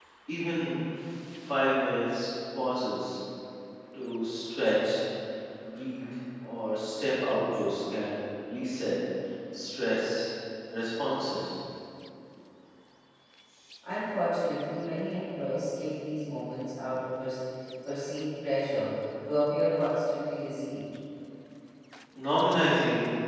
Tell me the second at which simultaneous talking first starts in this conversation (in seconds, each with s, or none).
none